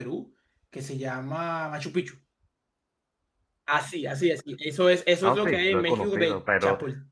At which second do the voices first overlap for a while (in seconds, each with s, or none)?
5.2 s